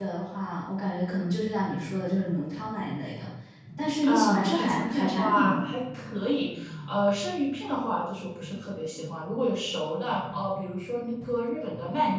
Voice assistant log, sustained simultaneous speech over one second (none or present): present